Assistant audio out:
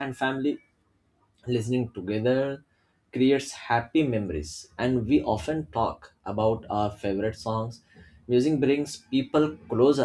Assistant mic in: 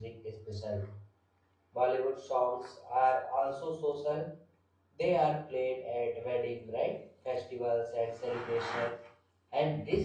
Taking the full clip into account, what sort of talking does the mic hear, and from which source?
user only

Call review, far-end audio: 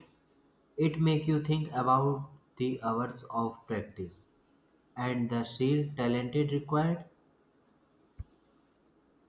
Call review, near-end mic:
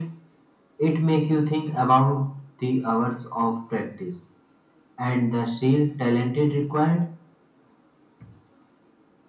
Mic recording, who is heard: echo only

